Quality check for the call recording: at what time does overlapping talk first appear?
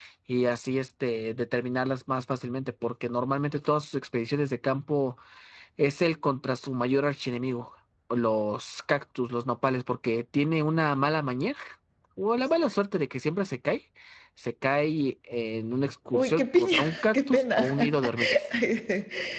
16 s

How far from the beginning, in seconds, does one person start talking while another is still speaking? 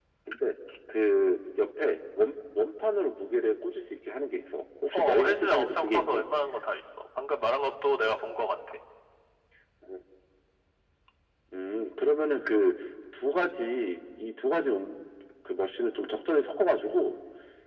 5 s

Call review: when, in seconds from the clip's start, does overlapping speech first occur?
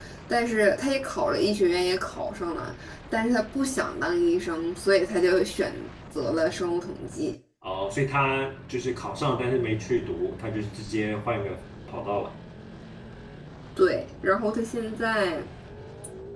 none

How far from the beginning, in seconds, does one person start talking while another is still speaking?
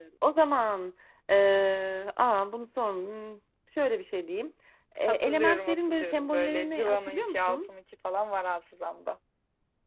5 s

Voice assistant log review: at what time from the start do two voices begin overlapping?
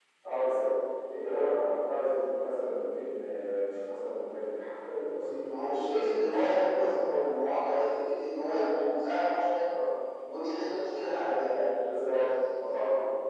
5 s

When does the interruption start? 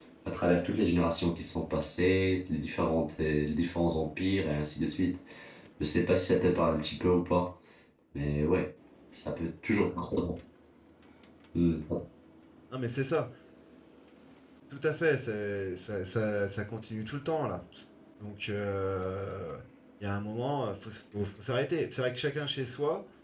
none

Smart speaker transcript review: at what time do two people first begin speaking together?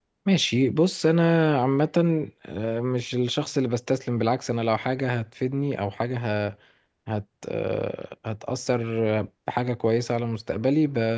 none

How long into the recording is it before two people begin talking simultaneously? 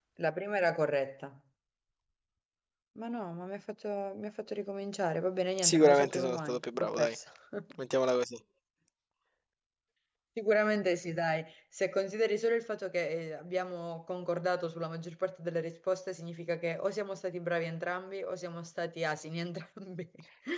6 s

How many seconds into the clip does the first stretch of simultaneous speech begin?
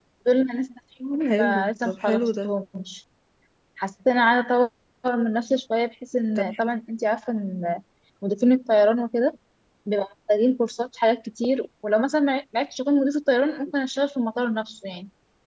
1 s

